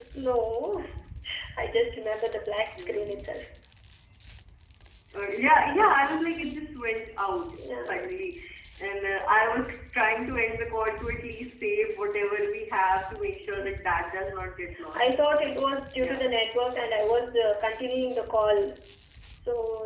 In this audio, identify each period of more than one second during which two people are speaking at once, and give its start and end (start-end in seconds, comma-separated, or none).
none